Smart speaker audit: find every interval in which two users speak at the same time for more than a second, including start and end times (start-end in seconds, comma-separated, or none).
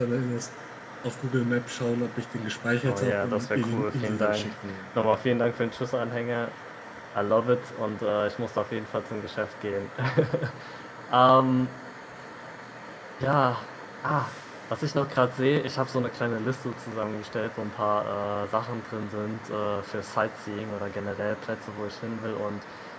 2.9-4.5